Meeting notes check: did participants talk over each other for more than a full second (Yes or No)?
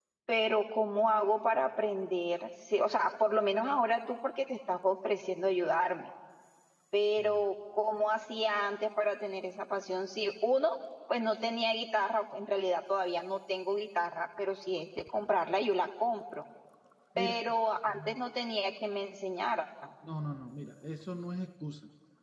No